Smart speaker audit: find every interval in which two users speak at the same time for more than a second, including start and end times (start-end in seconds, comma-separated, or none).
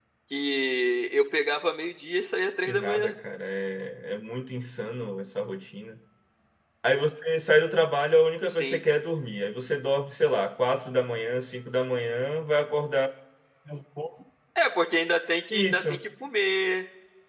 none